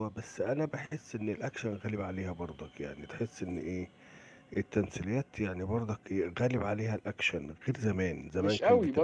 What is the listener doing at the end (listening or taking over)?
taking over